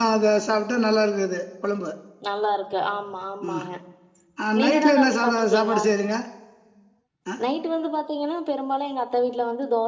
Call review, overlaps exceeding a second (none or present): present